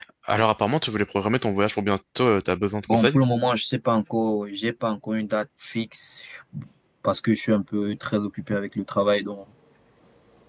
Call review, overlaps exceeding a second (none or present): none